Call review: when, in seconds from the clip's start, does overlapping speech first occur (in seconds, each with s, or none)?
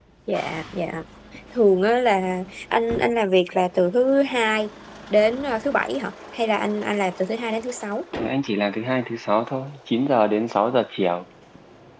none